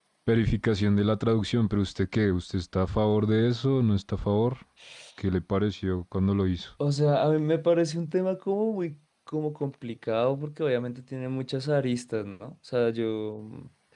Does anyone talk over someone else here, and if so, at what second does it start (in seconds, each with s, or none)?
none